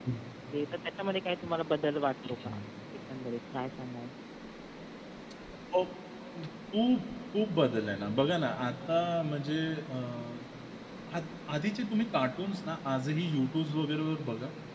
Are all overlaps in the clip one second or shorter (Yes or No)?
Yes